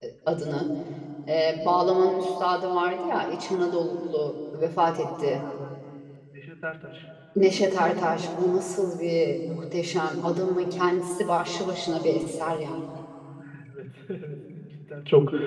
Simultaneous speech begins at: none

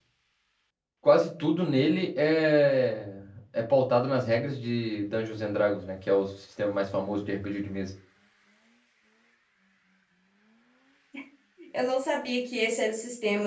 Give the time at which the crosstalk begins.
none

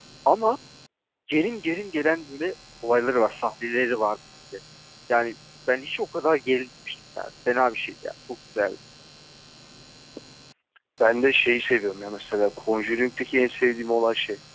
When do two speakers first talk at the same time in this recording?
none

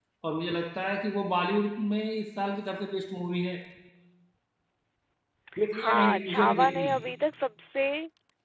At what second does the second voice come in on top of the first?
5.7 s

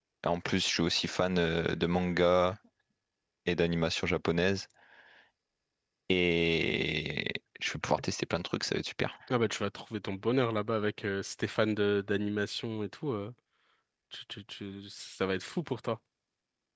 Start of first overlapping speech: none

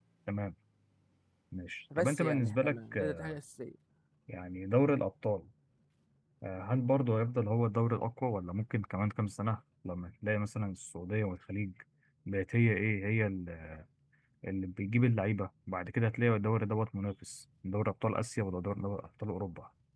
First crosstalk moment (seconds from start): 2.0 s

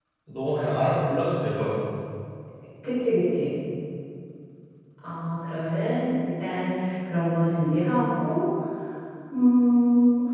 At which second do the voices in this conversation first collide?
none

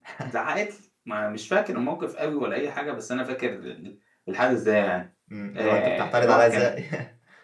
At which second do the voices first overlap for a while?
5.5 s

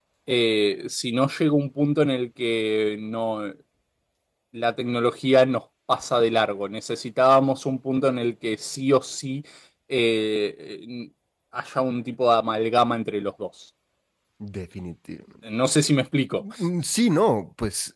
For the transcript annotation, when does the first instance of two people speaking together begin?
none

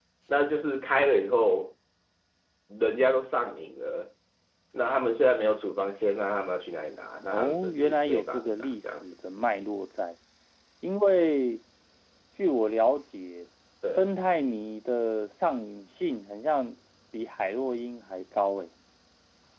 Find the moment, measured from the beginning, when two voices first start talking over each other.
7.2 s

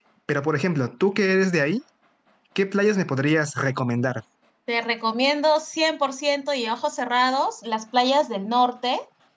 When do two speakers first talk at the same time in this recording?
none

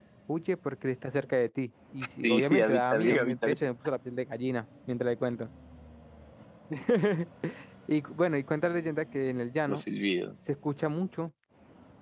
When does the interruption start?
2.2 s

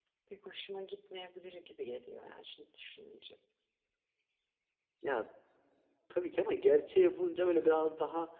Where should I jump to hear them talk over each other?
none

